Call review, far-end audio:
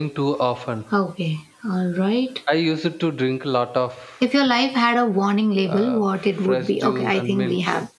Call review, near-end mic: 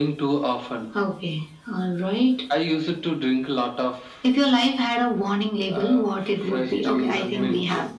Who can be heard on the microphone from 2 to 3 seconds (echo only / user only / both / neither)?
echo only